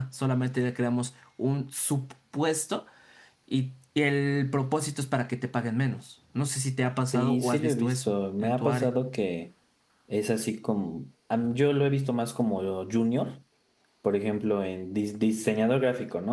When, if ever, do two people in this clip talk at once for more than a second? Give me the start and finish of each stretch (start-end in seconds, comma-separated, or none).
7.1-8.9